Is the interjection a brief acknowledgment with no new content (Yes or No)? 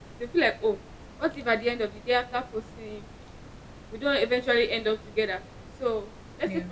Yes